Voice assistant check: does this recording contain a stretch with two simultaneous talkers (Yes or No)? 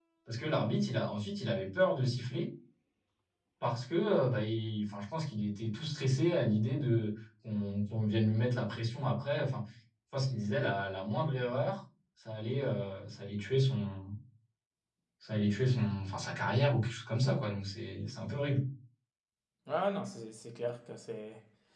No